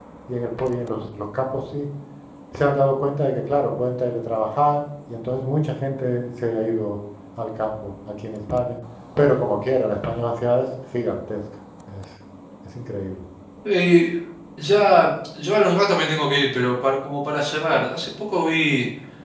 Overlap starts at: none

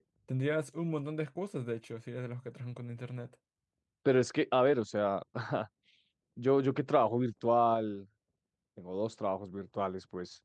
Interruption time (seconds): none

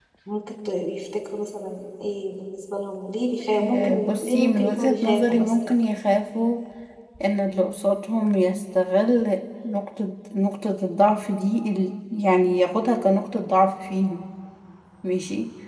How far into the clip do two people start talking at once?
3.5 s

